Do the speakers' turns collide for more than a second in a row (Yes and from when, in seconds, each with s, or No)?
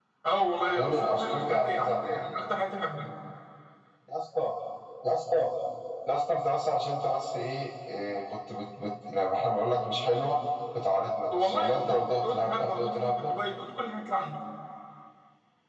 Yes, from 0.8 s